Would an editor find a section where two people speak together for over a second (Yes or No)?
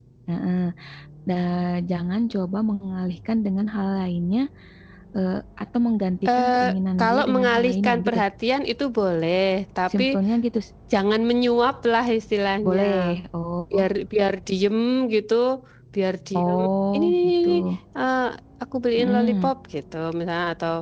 Yes